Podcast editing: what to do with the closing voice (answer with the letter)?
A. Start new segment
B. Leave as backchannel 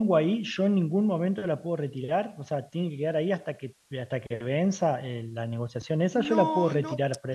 A